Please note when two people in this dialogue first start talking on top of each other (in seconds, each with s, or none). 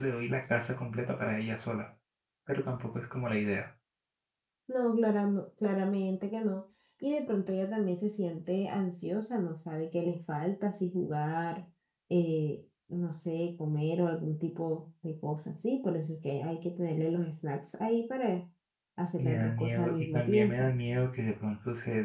19.2 s